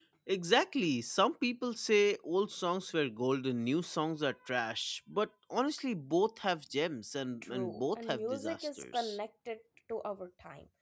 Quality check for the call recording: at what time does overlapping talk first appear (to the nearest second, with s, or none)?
7 s